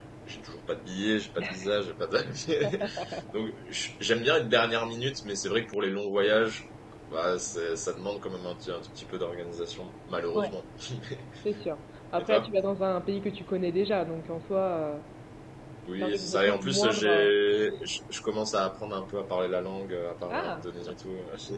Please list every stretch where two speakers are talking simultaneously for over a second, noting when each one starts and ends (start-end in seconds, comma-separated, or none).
16.0-17.2